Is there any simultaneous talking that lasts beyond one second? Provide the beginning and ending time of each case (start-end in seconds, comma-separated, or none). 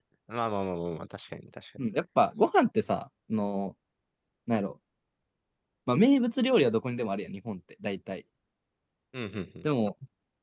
none